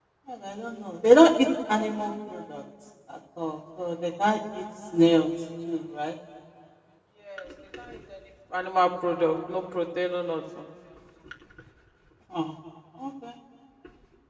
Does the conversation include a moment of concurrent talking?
No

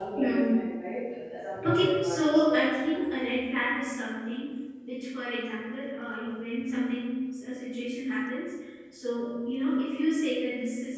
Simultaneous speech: Yes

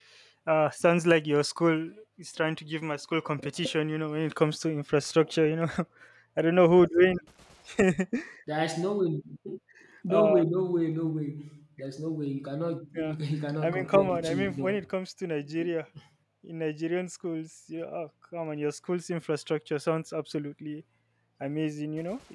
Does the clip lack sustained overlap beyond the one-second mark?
No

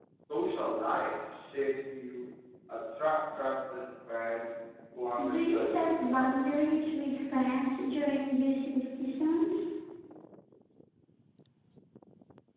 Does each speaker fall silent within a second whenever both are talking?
No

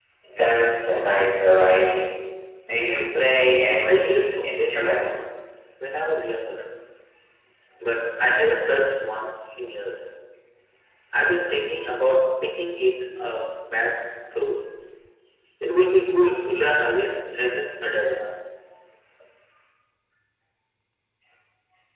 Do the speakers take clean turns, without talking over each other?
No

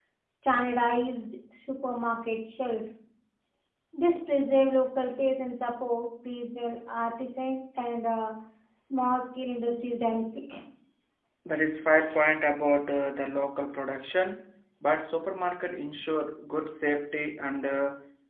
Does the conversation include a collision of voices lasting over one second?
No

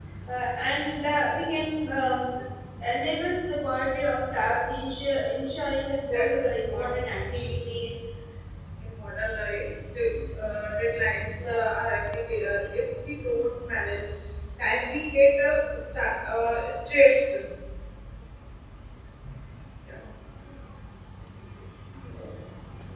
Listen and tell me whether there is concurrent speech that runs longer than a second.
Yes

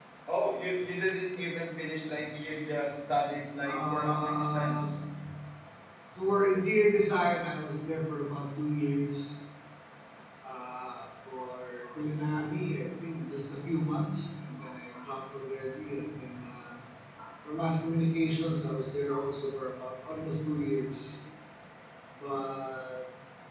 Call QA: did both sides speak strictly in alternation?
No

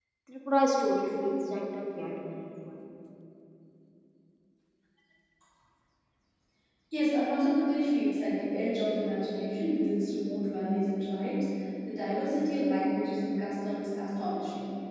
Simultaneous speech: No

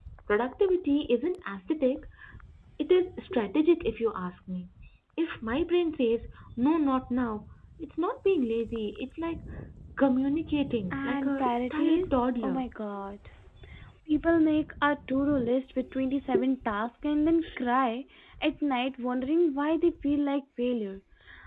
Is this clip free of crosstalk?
No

